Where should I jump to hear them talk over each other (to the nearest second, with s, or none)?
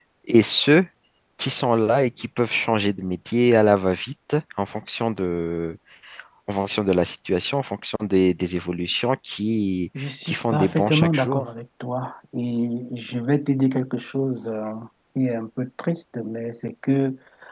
10 s